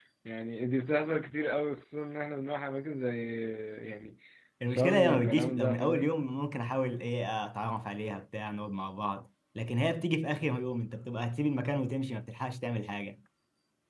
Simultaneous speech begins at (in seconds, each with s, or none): 4.7 s